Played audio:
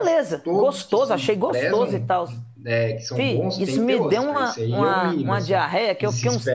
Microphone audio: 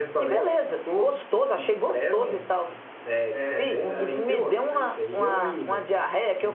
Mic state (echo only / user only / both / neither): both